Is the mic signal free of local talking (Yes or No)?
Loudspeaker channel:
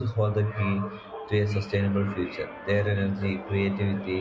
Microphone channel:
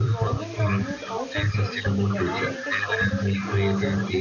No